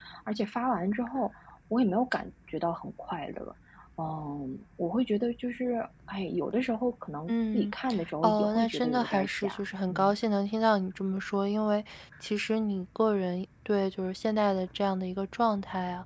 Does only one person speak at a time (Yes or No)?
No